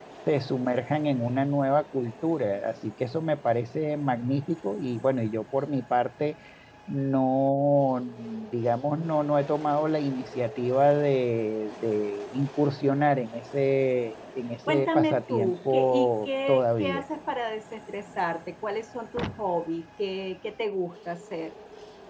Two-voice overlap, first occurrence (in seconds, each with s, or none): 14.7 s